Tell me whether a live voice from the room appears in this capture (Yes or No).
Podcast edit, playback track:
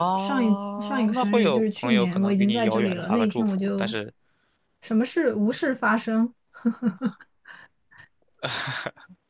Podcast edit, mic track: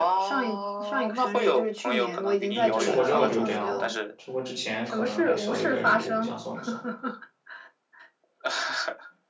Yes